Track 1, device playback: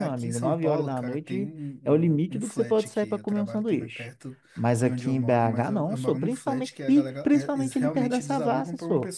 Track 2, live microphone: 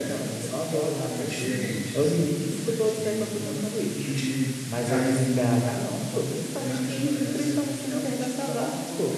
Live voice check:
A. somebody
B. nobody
A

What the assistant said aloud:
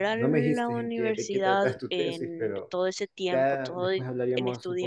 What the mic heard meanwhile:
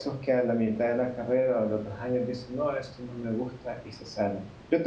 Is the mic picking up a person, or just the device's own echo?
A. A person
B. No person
A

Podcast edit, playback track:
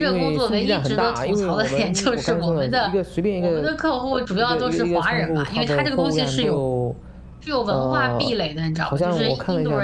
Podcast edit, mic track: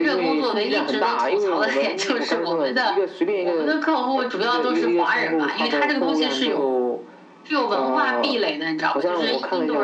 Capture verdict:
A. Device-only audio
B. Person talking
A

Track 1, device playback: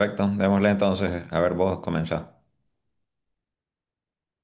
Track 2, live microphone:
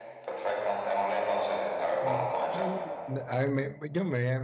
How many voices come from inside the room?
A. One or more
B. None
A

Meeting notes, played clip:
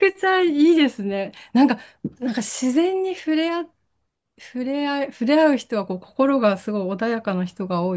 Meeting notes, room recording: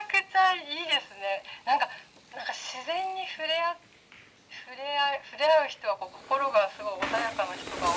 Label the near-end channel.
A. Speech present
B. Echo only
B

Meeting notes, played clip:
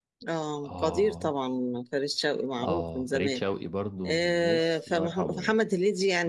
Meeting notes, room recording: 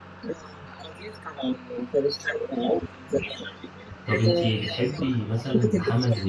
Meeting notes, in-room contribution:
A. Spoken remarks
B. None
A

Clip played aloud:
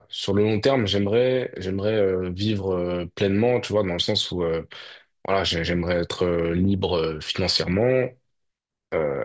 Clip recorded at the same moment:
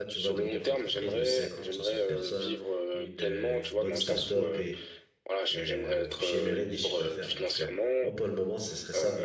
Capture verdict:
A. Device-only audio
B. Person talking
B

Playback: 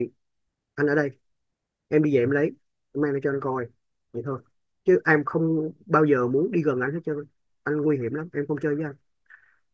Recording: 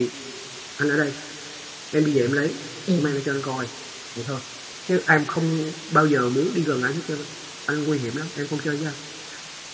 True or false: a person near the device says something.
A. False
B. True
B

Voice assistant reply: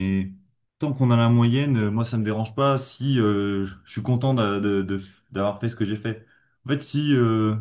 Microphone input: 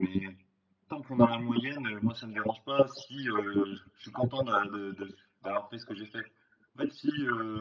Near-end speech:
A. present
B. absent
B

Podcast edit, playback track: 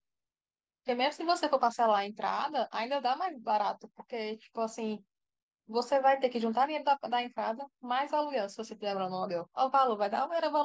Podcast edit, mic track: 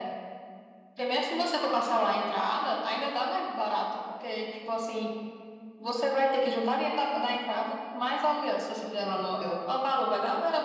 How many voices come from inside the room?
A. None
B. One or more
A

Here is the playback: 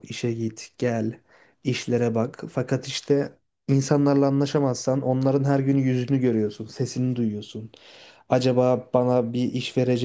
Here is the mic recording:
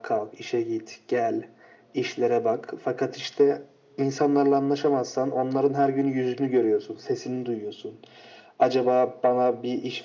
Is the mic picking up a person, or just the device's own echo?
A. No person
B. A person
A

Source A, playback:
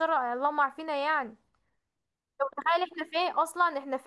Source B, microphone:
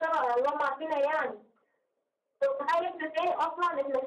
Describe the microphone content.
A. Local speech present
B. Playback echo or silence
B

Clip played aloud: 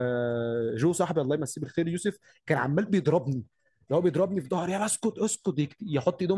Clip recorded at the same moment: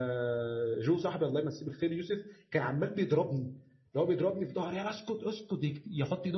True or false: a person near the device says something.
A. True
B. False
B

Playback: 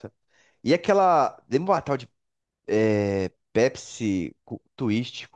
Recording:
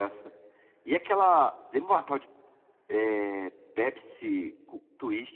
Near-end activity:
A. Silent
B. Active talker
A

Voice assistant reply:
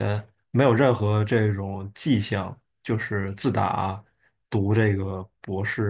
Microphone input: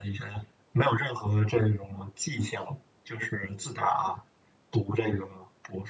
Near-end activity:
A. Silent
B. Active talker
A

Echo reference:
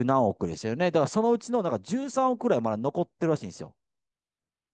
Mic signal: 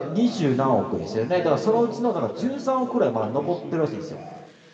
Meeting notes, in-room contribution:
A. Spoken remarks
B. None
A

